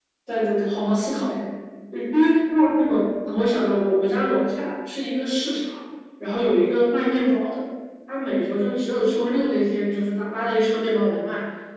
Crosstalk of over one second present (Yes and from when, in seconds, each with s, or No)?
No